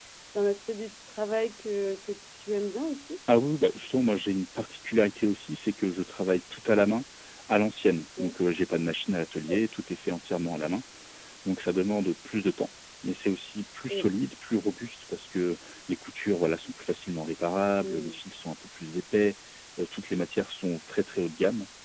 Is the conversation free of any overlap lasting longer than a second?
Yes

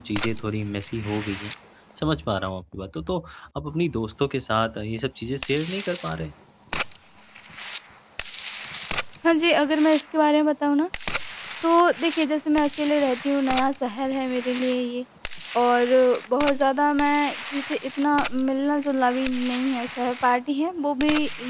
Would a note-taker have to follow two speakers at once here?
No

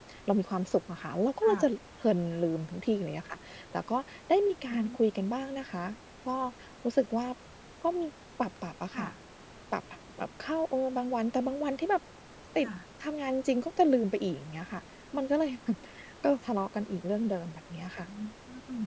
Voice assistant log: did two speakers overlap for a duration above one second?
No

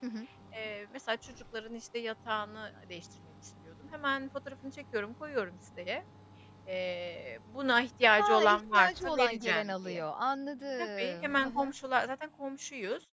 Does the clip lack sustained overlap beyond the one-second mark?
No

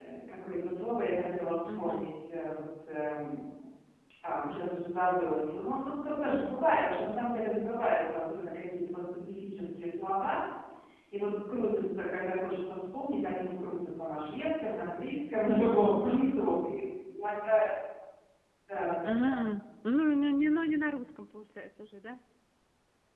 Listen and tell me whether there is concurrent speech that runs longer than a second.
No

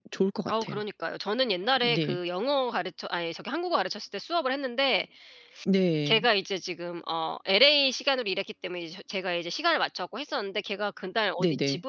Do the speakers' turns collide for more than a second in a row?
No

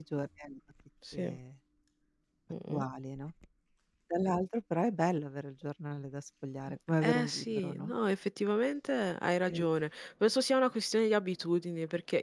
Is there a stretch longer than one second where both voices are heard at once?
Yes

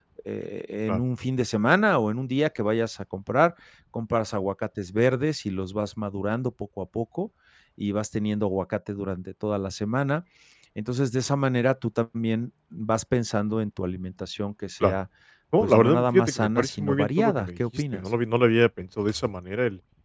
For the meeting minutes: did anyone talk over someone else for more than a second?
Yes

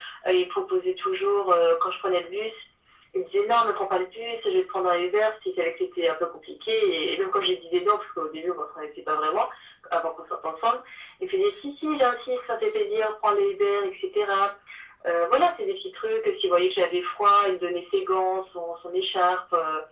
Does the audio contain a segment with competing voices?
No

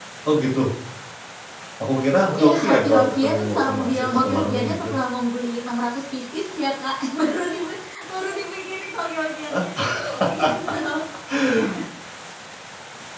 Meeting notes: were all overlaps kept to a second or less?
No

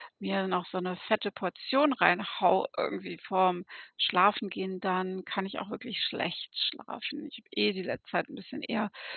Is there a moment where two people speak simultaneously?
No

